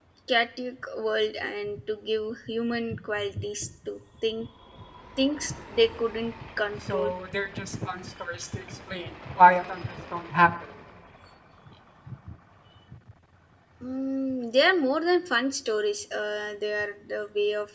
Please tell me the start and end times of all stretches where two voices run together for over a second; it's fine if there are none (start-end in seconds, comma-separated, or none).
none